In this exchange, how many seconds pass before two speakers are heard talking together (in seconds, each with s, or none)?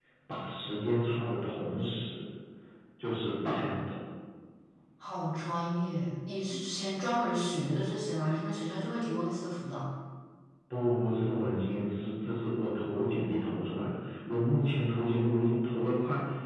none